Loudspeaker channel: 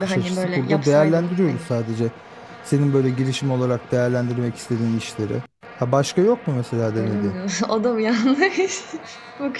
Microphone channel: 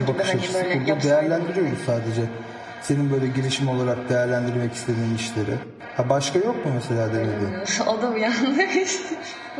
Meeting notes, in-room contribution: none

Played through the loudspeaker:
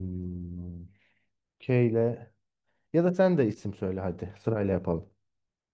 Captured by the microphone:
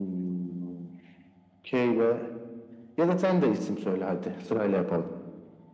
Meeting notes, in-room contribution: none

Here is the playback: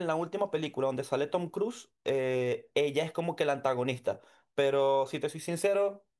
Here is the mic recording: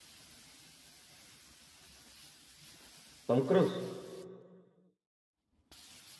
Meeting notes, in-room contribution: present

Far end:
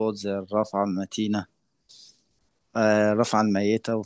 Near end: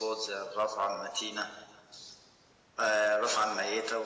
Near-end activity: none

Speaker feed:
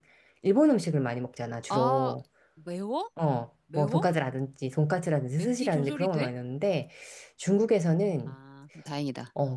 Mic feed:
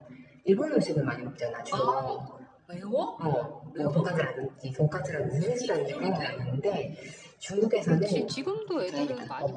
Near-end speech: present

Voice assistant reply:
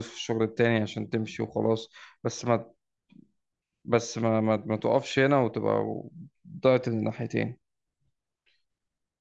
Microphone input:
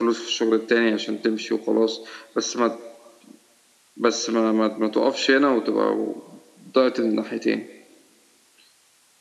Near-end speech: none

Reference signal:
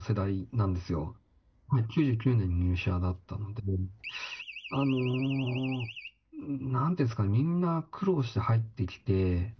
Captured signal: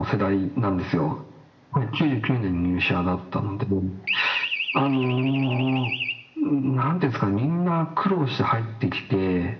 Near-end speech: none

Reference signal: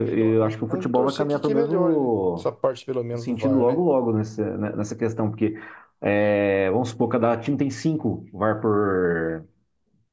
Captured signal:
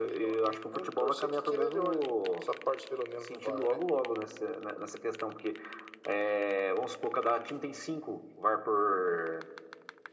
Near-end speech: none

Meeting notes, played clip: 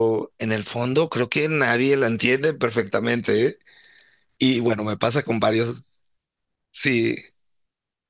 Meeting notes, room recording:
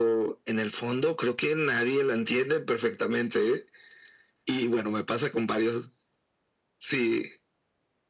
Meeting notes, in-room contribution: none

